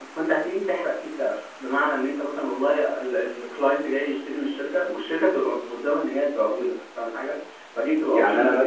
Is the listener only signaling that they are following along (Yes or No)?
No